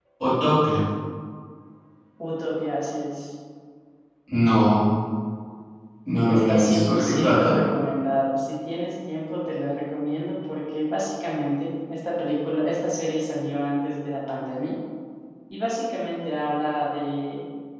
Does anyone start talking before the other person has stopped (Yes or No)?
Yes